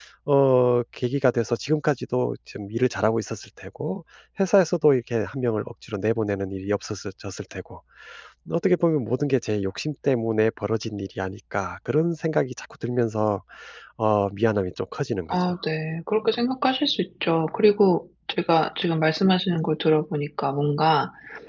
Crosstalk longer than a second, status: none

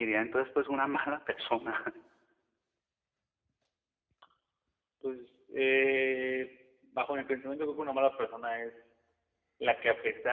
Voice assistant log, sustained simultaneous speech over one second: none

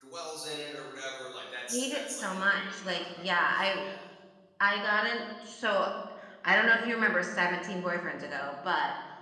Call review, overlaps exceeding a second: present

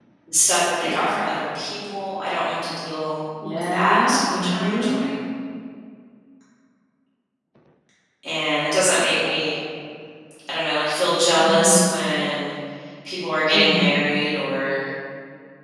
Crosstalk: present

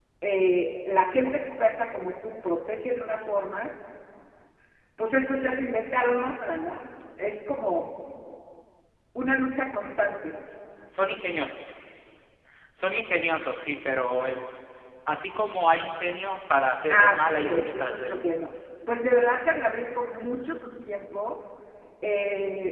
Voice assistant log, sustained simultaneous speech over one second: present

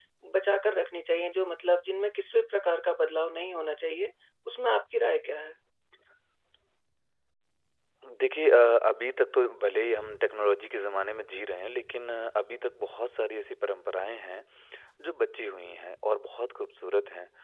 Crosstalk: none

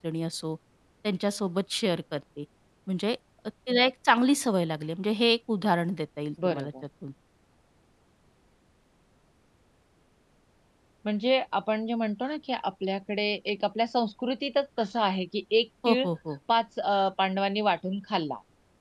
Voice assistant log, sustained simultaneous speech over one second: none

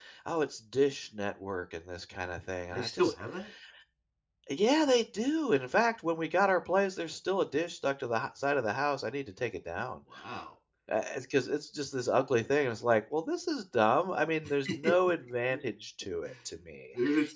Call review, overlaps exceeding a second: none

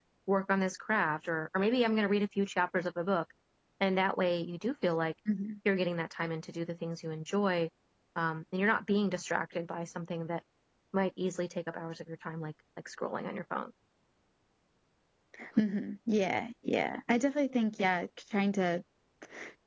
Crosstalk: none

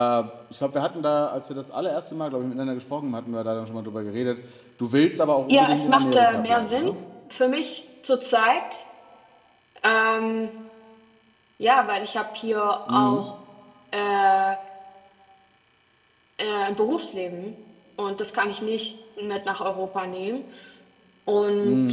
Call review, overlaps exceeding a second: present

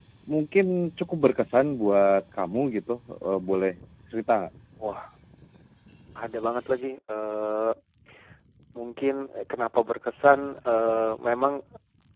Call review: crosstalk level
none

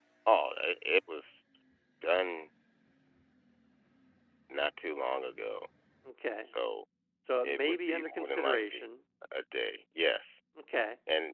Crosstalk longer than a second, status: present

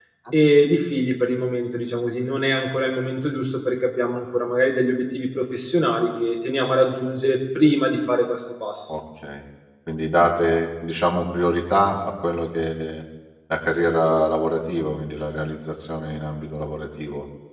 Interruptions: none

